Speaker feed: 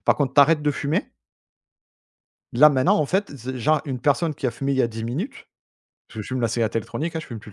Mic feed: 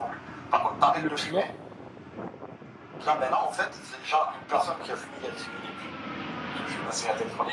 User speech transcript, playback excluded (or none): Le piment.